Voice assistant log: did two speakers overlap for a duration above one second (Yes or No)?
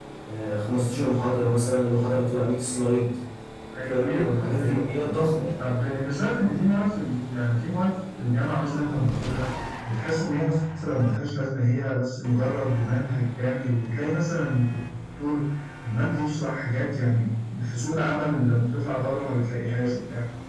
Yes